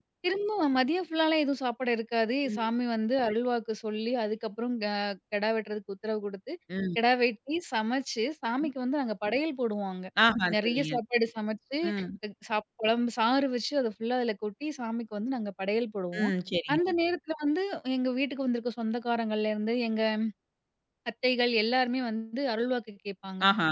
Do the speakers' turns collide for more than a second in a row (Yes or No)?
No